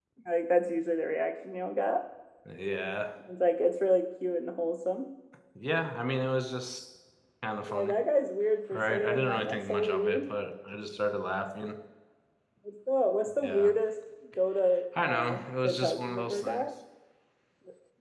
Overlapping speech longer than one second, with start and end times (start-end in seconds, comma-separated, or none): 8.7-10.2, 15.0-16.7